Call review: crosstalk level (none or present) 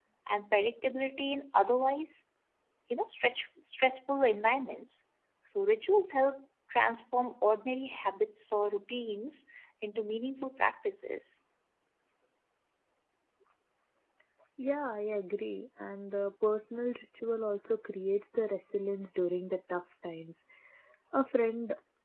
none